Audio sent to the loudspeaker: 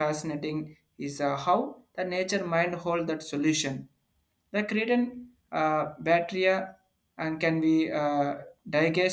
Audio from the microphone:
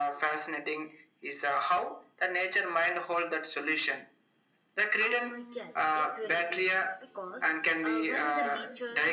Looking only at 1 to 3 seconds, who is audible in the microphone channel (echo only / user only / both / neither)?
echo only